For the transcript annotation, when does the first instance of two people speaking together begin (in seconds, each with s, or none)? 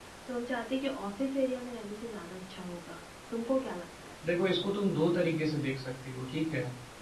none